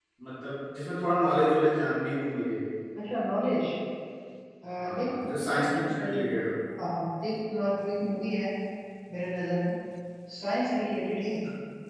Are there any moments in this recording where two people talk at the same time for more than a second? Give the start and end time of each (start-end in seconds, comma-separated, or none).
4.8-6.2